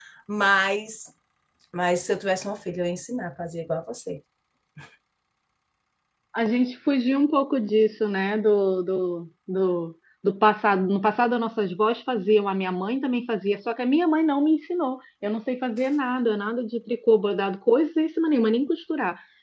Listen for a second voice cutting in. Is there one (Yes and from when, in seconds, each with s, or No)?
No